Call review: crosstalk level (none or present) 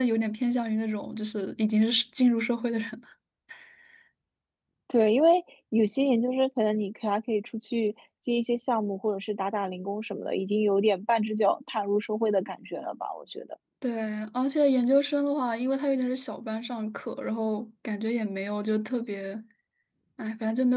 none